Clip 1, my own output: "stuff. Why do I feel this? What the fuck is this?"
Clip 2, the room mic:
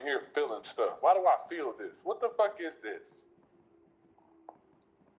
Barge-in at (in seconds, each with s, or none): none